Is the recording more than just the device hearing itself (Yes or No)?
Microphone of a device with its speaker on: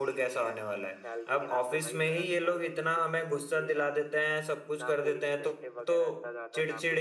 Yes